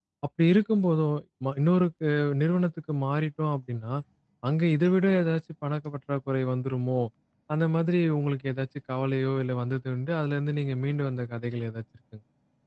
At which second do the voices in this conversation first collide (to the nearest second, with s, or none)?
none